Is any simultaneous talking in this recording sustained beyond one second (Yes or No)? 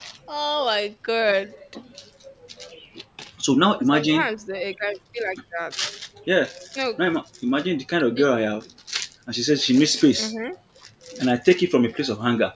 No